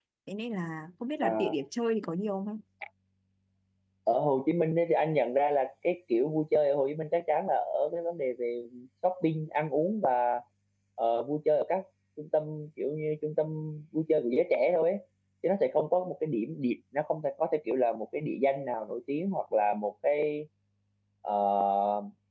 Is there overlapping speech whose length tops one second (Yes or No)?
No